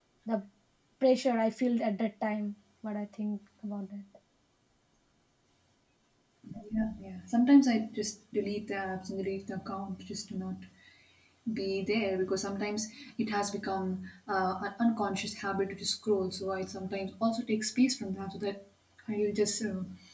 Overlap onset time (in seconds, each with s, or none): none